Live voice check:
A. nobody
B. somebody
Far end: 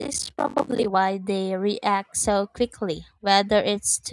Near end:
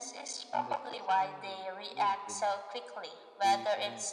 B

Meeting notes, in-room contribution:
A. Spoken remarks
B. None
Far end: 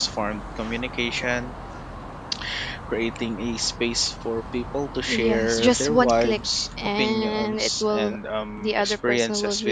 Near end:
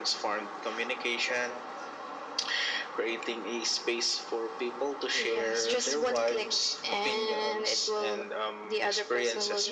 B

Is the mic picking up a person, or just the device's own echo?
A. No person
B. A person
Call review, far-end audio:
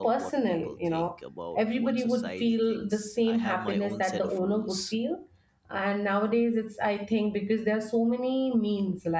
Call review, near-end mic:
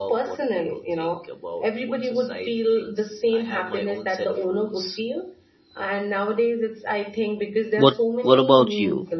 B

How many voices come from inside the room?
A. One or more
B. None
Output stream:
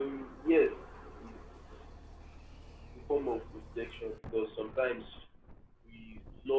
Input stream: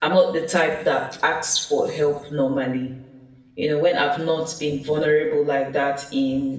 A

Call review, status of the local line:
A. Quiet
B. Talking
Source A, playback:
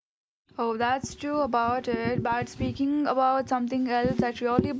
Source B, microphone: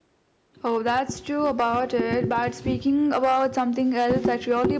A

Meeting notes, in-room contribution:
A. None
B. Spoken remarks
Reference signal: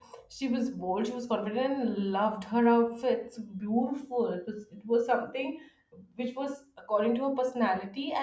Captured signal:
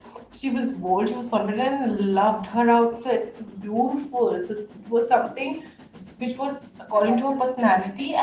B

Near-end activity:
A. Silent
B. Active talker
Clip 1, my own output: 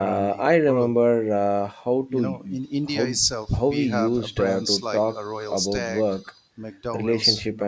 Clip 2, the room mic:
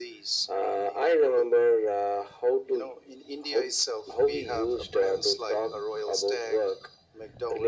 A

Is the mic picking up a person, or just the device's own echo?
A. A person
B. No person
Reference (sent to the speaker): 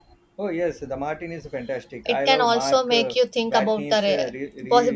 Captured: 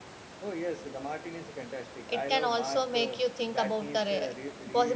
B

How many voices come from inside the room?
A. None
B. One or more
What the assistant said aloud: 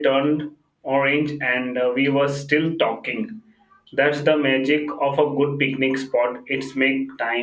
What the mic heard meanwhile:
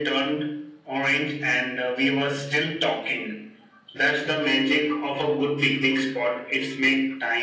A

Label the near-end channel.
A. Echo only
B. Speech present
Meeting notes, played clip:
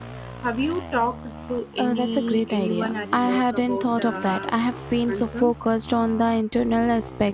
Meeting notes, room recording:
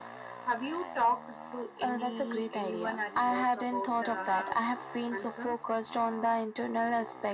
A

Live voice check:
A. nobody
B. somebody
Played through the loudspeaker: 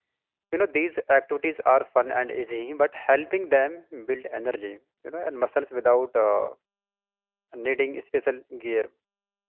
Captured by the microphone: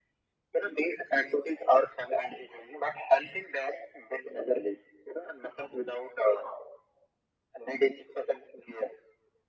A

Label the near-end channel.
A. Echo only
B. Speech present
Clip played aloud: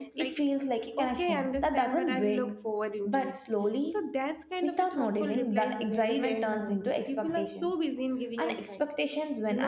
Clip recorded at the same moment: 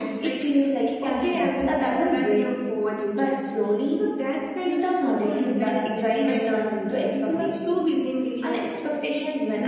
A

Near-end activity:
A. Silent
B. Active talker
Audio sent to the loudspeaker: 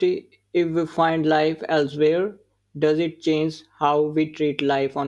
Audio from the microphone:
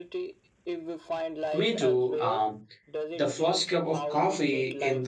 B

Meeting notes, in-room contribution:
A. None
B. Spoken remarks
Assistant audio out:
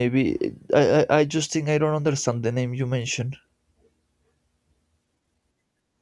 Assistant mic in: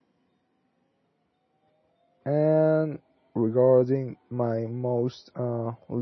B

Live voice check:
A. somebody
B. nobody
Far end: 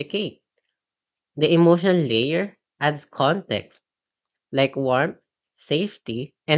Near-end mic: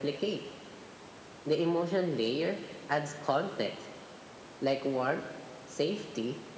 B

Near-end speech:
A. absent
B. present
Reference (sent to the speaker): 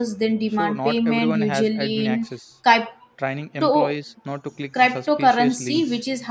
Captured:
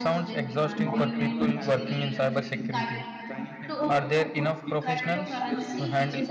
B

